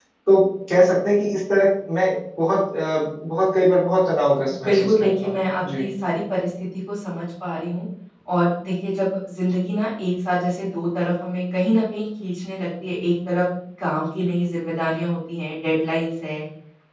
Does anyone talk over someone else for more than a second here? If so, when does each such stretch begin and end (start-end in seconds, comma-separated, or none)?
4.7-5.9